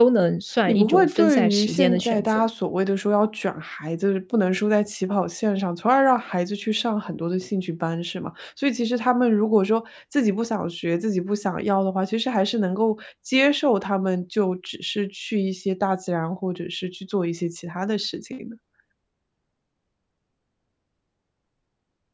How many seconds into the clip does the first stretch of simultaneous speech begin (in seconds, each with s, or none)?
0.7 s